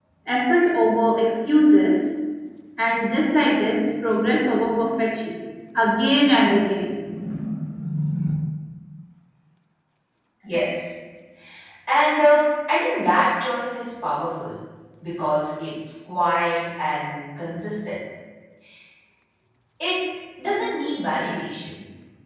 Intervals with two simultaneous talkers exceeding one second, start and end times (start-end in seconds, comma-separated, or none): none